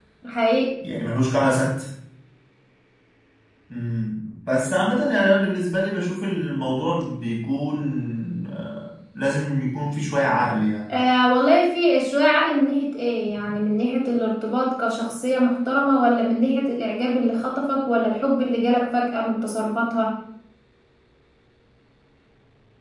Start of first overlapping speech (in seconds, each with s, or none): none